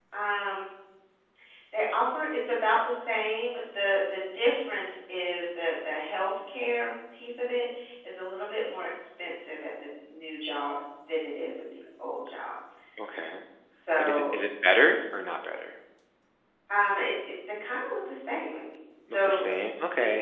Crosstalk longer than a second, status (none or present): none